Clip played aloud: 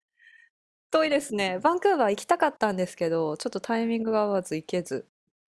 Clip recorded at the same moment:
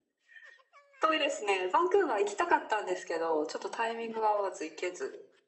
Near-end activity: none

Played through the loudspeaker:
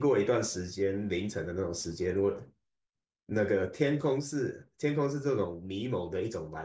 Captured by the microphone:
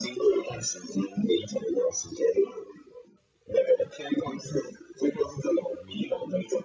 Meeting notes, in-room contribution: none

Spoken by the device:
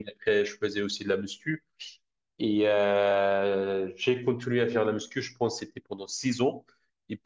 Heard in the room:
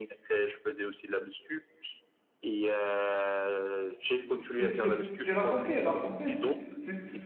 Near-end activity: present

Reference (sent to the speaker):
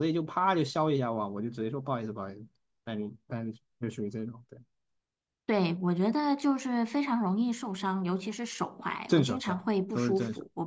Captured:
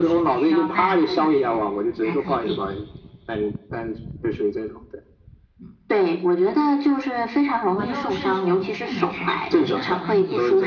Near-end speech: present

